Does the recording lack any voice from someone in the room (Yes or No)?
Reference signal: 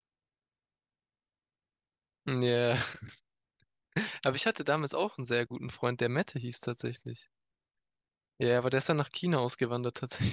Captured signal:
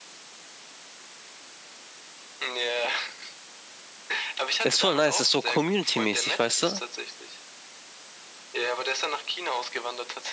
No